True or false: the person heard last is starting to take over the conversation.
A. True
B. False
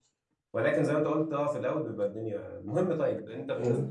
B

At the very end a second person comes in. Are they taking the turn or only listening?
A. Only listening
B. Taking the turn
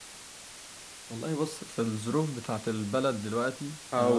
A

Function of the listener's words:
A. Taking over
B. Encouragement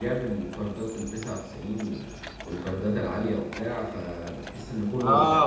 A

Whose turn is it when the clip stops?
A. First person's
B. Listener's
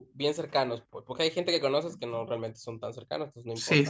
B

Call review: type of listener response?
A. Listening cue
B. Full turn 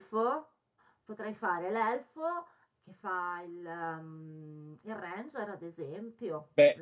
B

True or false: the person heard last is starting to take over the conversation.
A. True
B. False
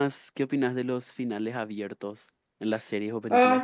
A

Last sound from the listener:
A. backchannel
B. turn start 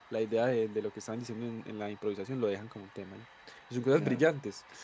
A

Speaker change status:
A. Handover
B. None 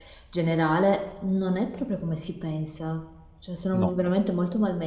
B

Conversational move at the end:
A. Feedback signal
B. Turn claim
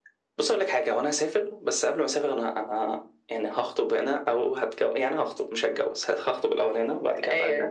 A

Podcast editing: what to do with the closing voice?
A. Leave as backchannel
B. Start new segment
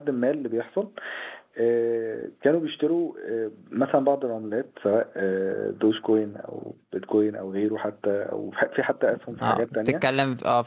B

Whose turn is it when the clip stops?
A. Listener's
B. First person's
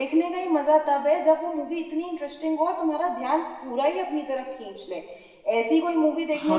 A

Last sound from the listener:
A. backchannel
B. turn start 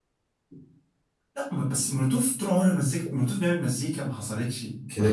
B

